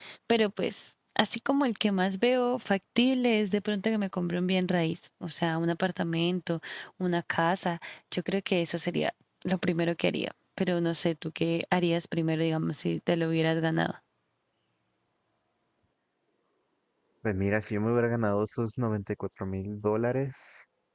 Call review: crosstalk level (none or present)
none